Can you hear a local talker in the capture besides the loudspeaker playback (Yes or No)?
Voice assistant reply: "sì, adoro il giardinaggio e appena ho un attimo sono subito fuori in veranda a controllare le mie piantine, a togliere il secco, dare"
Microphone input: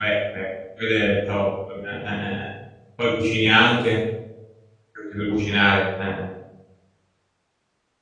Yes